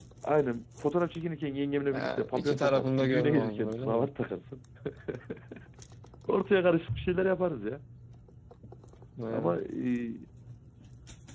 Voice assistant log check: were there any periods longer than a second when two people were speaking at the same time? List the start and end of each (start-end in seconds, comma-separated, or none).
1.9-4.1